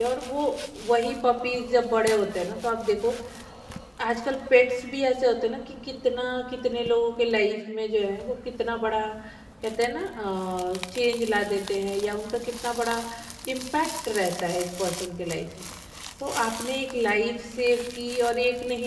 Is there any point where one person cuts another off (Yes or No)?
No